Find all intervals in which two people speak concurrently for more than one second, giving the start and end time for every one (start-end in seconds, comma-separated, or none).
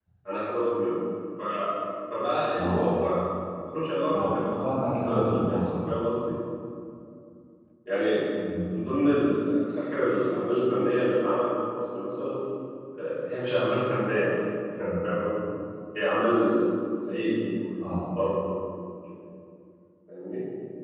4.1-6.2